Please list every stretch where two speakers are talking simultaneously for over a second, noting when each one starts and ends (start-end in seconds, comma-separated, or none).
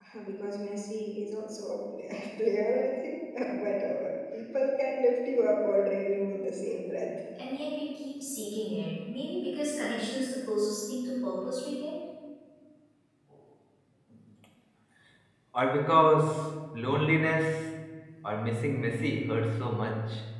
none